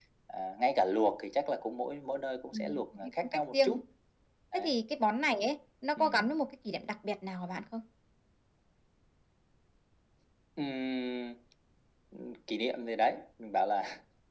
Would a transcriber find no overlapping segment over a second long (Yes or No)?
No